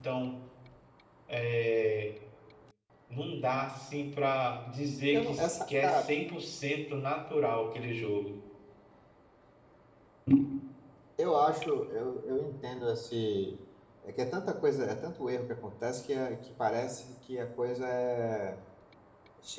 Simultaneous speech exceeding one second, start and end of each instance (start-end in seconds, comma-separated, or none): none